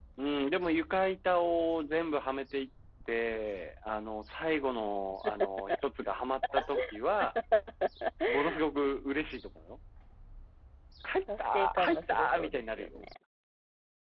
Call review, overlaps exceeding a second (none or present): present